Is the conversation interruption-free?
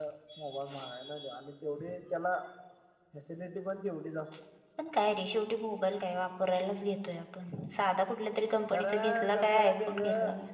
No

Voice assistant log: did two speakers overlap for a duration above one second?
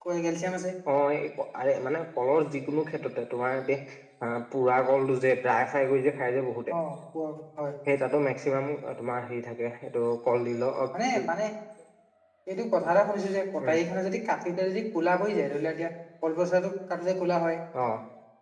No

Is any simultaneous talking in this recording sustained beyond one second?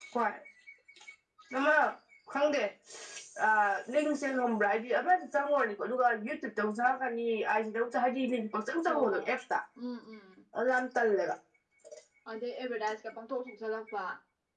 No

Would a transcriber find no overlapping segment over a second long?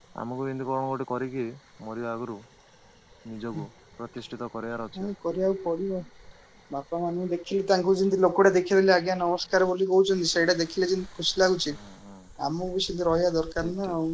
Yes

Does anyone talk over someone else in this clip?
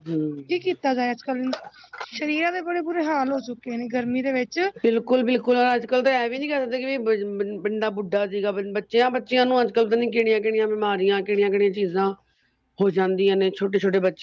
No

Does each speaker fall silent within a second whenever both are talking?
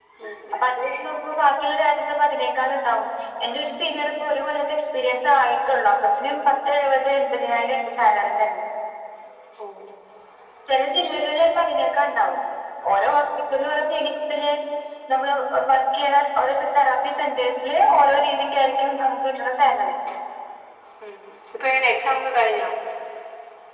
Yes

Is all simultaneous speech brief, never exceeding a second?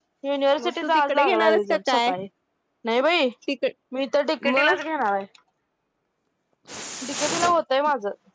No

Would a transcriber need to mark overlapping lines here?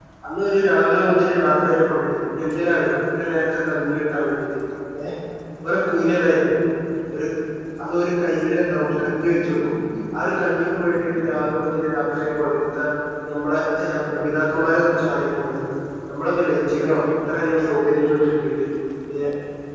No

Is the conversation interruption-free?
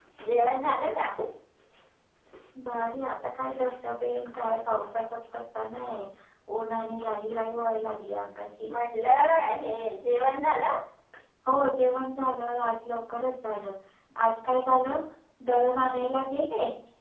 Yes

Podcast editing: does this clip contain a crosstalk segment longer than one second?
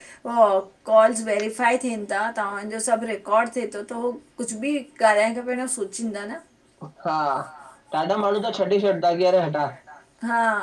No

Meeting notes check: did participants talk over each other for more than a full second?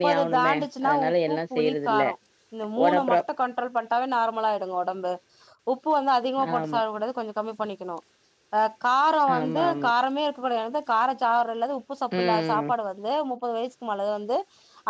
Yes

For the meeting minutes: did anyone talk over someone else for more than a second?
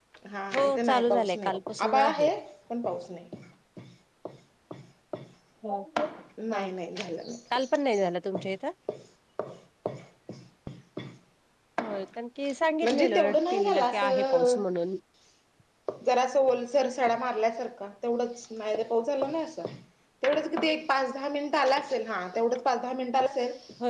Yes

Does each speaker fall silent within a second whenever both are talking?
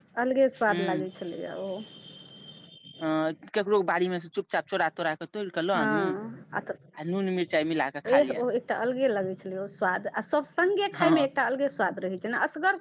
Yes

